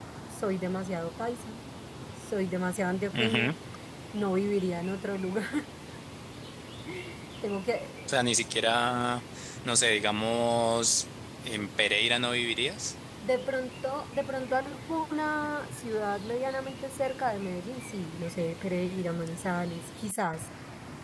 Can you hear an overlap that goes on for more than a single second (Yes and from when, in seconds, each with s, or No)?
No